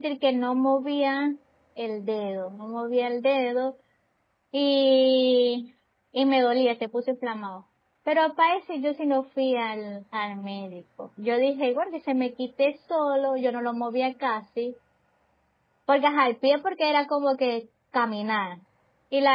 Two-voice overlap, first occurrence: none

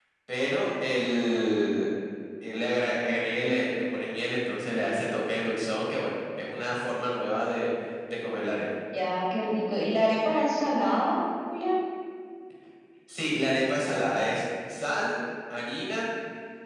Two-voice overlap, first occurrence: none

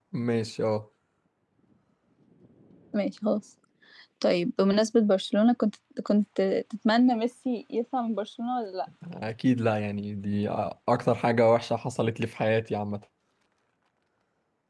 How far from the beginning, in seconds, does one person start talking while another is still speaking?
none

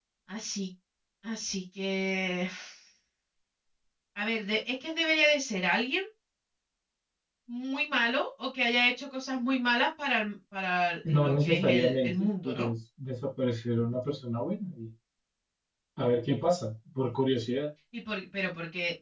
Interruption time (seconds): 11 s

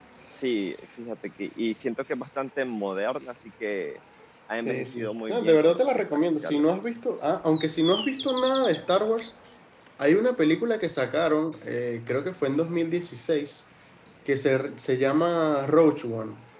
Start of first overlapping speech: 5 s

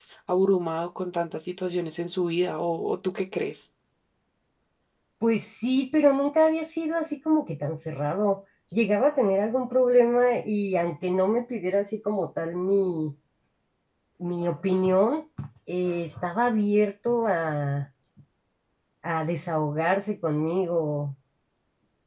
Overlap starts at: none

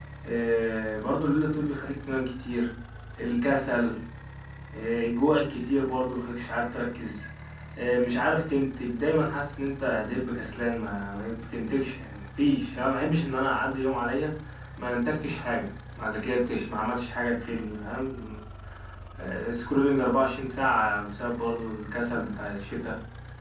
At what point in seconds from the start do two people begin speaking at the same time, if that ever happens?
none

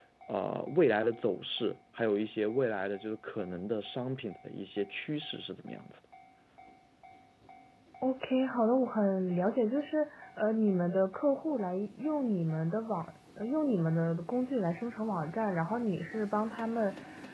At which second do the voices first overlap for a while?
none

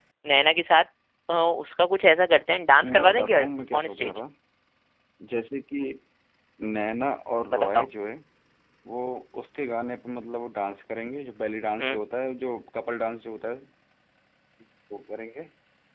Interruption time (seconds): 3 s

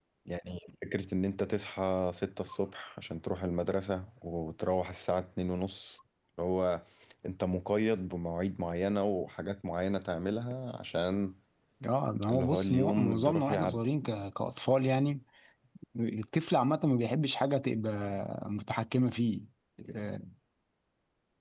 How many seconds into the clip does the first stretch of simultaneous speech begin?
12 s

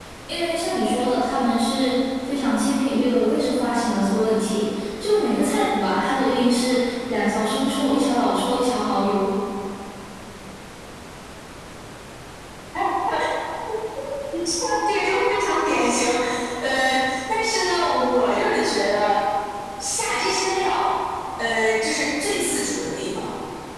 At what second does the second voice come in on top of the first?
none

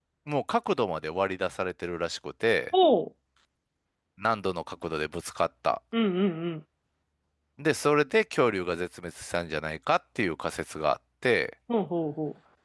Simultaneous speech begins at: none

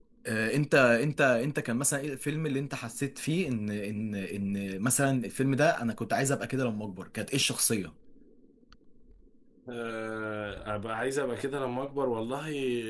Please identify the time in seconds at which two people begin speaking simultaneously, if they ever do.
none

